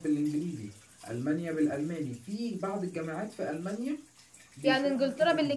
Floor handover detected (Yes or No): Yes